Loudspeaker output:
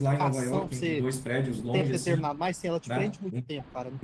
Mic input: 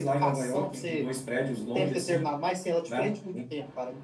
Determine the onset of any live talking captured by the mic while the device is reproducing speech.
none

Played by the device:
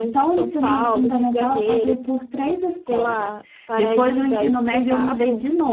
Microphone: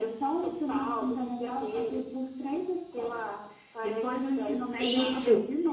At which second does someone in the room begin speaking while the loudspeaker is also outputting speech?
5 s

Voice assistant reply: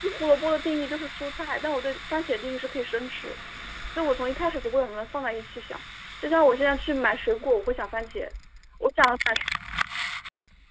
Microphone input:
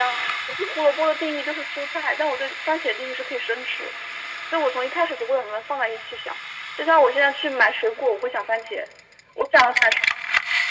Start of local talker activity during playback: none

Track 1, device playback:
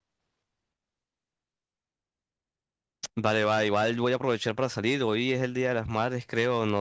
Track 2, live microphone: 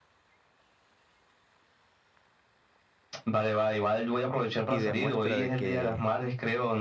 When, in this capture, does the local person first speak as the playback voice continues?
5 s

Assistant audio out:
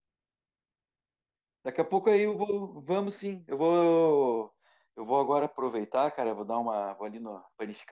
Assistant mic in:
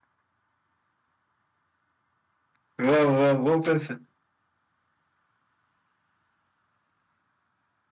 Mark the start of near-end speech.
3 s

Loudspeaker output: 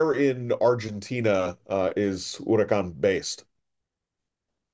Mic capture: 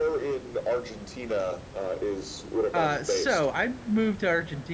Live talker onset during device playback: 3 s

